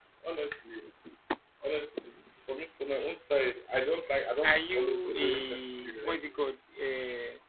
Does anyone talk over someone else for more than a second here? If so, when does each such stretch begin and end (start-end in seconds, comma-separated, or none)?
4.4-6.5